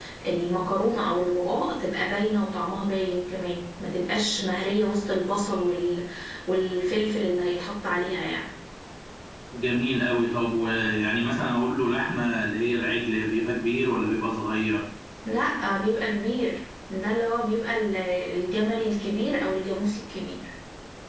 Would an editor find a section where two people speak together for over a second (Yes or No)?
No